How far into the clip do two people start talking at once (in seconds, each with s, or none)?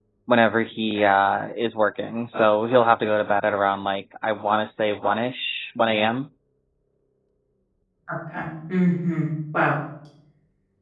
none